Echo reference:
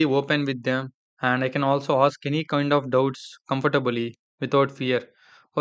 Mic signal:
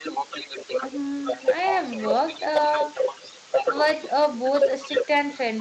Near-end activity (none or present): present